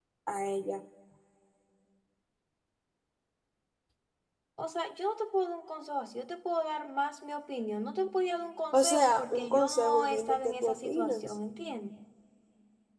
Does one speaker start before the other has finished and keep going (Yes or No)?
Yes